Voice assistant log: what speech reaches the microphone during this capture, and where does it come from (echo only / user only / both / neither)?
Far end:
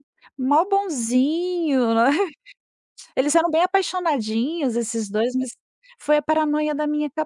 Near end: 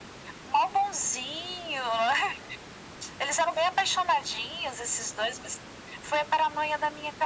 echo only